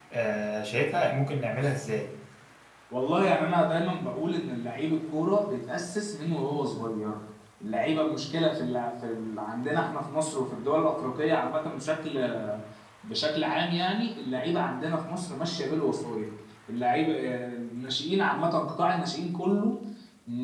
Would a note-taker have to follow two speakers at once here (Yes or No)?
No